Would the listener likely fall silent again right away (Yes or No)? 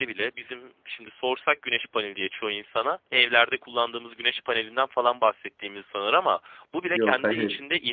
Yes